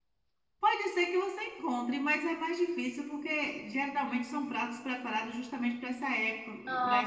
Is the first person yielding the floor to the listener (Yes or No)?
No